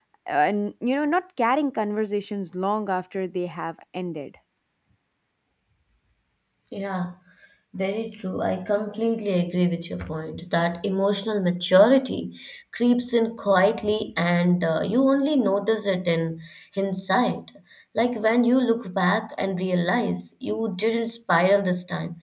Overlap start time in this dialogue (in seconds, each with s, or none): none